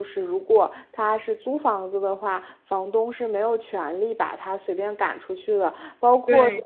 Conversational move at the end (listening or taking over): listening